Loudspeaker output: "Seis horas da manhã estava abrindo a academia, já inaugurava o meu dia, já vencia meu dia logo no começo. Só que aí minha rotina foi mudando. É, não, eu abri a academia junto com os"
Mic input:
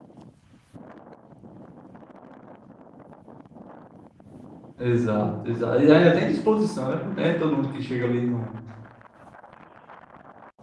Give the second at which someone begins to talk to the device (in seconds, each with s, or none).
4.8 s